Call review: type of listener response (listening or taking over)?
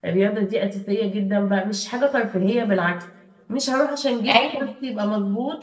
listening